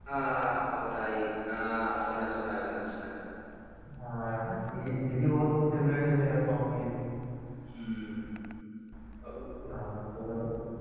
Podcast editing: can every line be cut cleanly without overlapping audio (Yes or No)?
Yes